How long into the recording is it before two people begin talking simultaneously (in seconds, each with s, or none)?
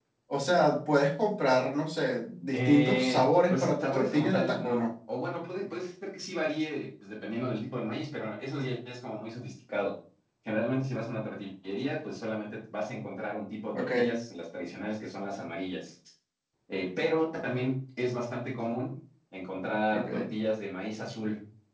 2.5 s